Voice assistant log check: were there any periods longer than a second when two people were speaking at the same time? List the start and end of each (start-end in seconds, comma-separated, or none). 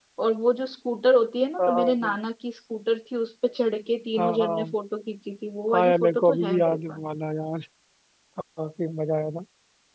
5.7-7.0